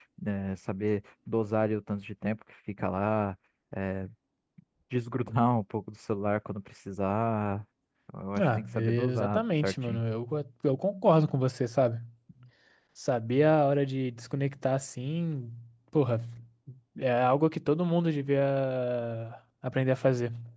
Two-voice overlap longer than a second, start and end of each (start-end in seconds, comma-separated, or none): 8.4-10.0